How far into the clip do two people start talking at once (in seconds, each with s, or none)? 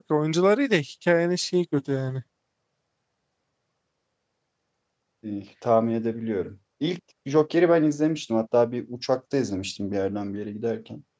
none